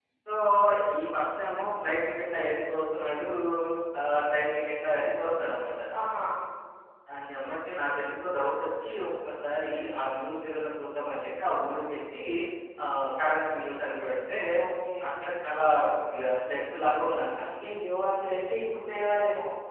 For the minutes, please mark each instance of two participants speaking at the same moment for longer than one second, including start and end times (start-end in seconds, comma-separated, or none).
none